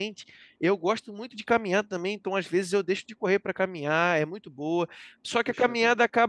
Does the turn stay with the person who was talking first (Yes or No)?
Yes